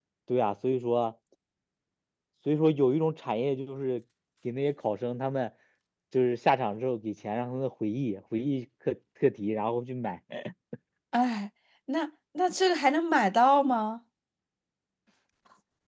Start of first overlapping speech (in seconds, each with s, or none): none